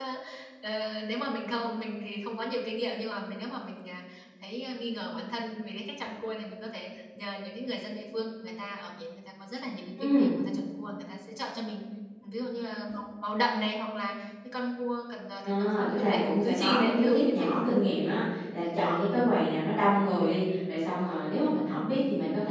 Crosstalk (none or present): present